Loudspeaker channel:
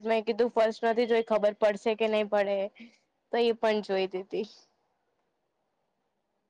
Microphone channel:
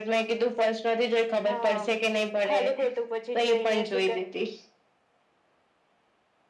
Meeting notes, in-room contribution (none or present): present